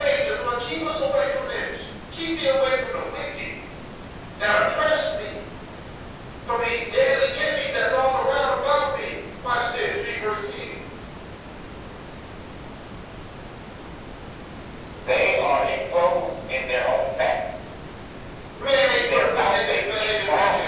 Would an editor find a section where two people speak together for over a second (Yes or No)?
Yes